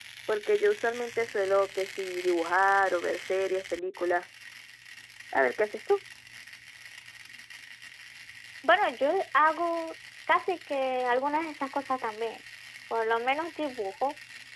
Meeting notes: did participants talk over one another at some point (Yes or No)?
No